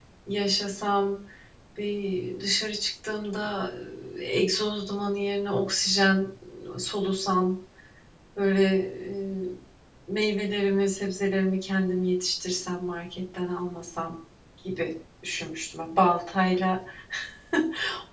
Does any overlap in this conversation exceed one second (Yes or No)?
No